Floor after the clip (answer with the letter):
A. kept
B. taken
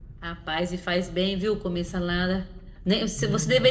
A